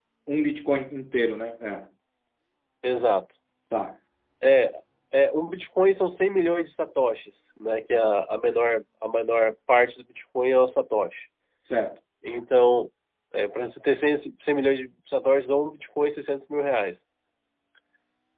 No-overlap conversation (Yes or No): Yes